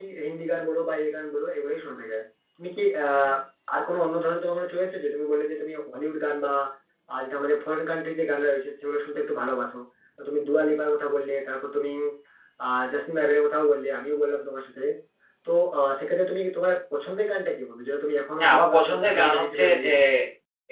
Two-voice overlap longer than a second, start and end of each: 18.4-19.9

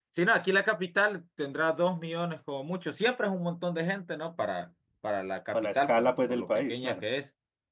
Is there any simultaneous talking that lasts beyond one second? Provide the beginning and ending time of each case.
5.5-7.0

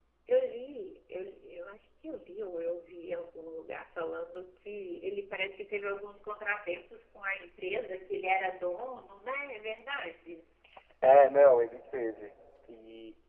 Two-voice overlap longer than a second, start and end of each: none

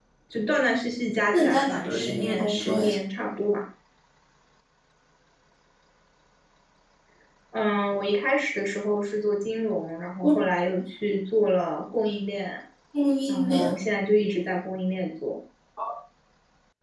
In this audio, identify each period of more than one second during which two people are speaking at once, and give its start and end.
1.3-2.9

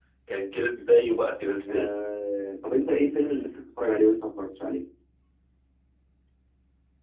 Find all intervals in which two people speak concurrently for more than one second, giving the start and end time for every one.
none

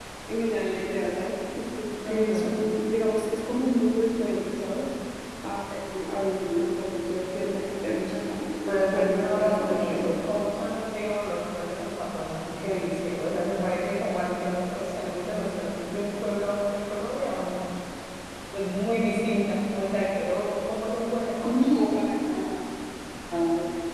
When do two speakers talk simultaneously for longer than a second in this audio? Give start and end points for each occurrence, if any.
8.7-10.2

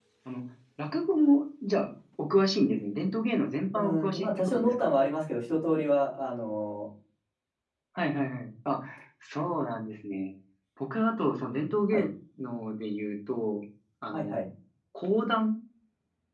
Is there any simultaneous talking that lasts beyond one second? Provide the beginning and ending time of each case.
3.7-5.0

